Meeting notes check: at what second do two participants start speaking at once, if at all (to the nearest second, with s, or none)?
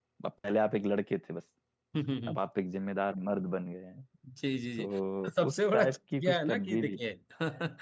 5 s